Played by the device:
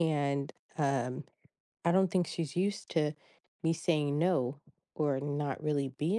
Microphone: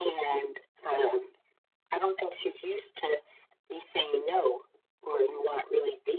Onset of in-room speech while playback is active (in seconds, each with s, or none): none